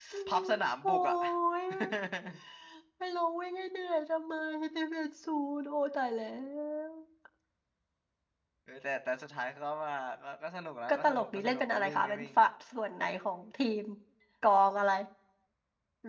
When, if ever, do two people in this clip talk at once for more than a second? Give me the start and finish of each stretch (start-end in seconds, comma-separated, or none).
10.9-12.2